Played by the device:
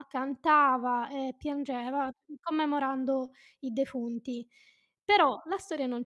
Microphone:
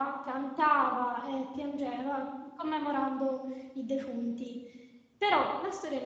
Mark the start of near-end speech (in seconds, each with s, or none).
none